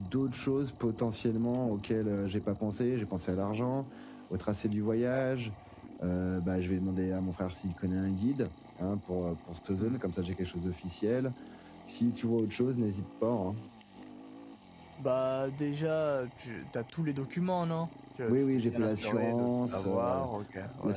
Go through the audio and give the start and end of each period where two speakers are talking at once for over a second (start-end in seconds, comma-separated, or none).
18.3-20.2